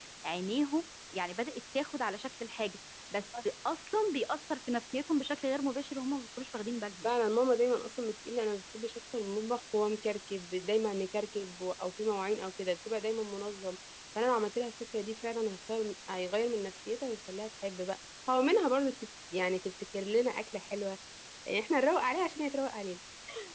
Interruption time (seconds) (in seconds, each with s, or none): none